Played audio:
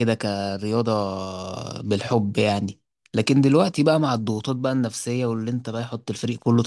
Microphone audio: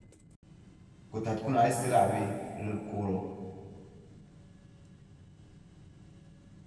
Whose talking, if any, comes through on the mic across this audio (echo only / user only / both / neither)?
user only